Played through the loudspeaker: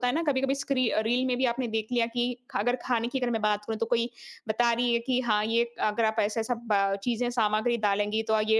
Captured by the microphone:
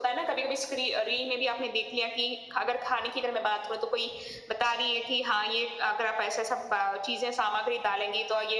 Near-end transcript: none

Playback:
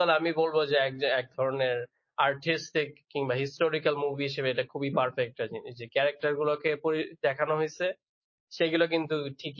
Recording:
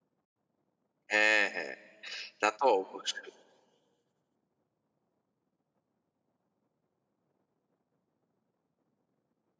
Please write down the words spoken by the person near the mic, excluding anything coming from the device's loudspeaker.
হ্যাঁ, হ্যাঁ। তা তো অবশ্যই।

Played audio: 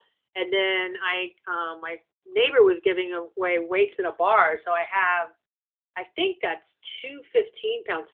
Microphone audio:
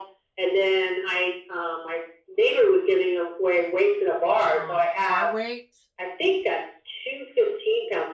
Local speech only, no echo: um, bar weight.

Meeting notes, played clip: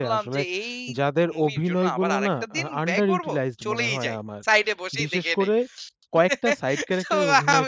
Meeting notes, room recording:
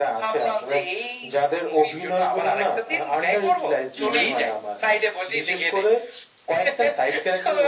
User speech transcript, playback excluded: হুম, হুম।

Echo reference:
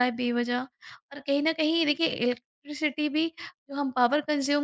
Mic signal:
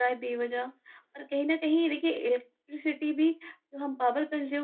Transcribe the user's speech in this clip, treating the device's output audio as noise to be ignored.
none

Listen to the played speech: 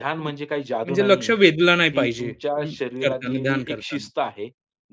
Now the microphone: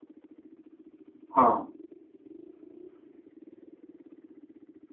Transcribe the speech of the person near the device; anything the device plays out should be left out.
हां,

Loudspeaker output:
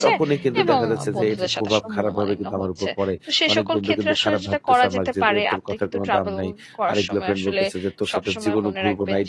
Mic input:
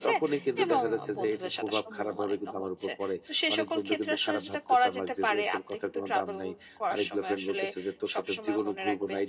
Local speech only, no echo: none

